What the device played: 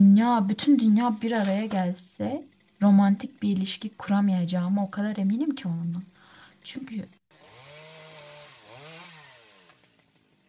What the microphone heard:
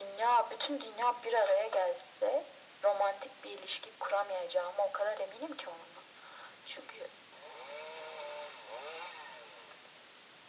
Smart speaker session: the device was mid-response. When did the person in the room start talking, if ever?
none

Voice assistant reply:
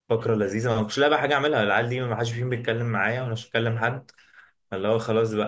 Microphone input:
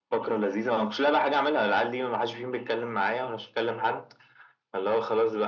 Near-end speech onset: none

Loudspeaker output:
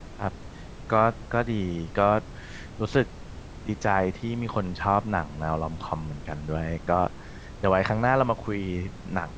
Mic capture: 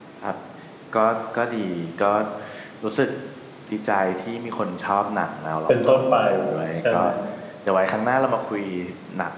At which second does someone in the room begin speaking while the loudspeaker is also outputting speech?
6 s

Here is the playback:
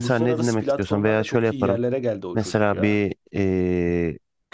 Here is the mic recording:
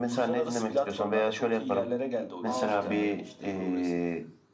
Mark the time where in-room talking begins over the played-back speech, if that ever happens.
2 s

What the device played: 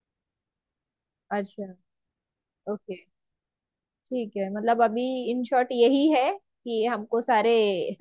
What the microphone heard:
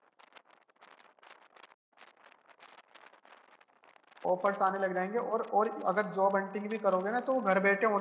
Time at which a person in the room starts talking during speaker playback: 4 s

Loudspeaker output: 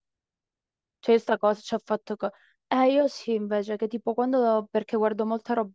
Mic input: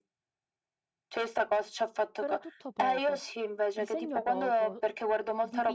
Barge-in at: 2 s

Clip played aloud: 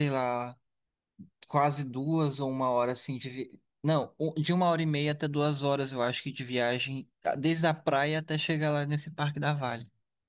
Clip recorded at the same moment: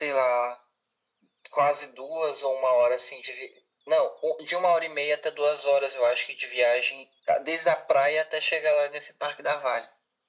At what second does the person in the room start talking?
none

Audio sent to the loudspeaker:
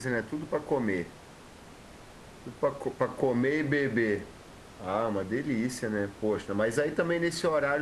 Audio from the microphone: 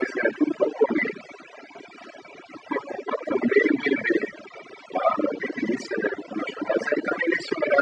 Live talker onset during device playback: none

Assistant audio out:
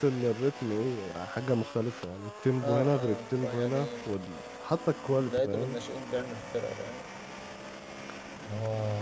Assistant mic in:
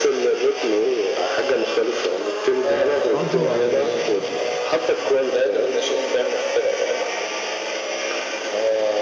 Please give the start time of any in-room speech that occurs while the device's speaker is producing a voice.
3 s

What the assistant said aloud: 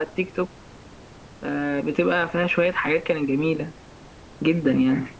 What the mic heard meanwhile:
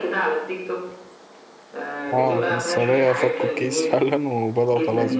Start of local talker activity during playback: 2 s

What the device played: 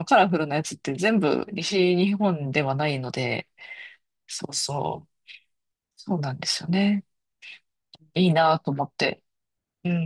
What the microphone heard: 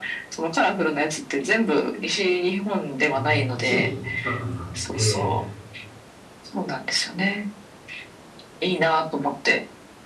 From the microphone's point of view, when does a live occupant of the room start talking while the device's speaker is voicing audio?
3 s

